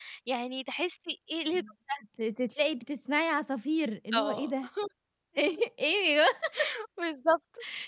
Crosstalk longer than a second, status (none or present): none